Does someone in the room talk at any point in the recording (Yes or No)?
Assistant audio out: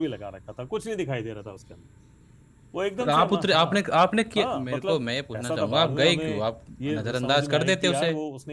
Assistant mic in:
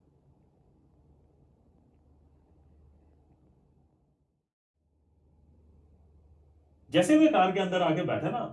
Yes